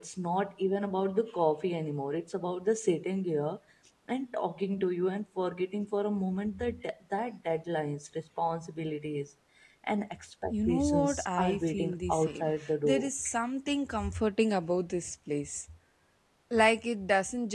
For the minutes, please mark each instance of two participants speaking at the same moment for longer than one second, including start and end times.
10.5-13.1

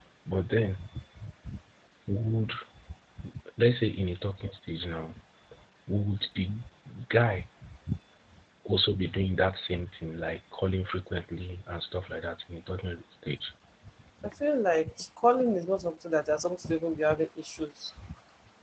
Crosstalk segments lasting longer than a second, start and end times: none

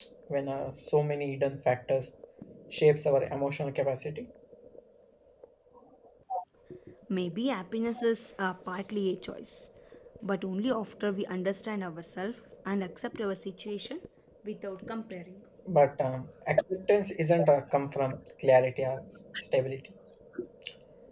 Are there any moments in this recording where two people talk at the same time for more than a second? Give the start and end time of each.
none

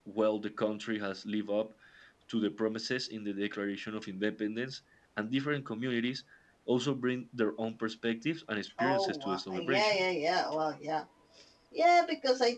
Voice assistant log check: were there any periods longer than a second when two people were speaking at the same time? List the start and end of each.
8.8-10.1

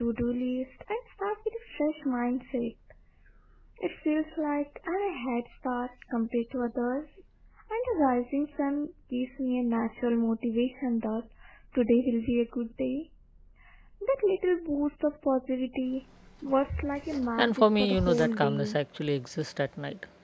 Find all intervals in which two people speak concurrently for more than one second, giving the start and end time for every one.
17.4-18.8

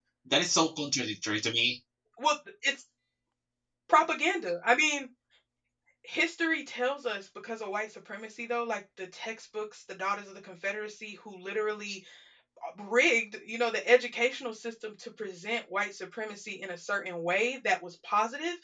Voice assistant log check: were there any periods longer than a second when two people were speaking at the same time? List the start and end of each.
none

